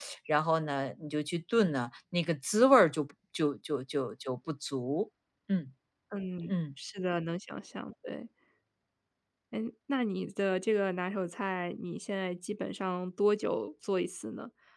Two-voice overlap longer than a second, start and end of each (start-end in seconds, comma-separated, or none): none